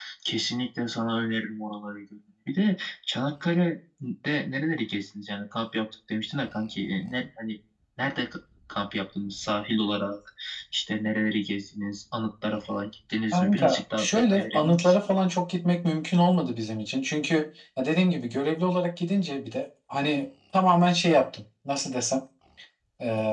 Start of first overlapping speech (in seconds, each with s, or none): 13.3 s